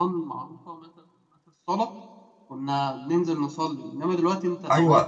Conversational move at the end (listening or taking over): taking over